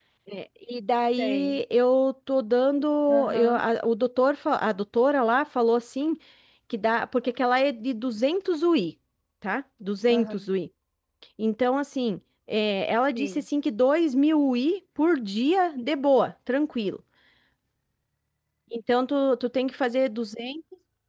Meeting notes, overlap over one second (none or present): none